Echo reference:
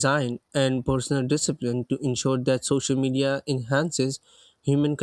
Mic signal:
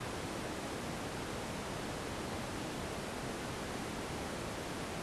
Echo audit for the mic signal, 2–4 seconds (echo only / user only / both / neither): neither